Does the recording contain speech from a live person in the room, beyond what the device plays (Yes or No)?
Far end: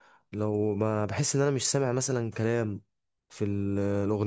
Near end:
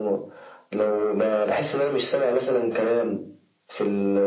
No